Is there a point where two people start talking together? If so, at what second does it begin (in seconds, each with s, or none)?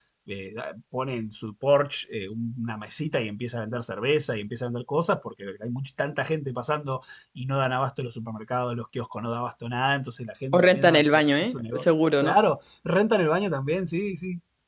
10.5 s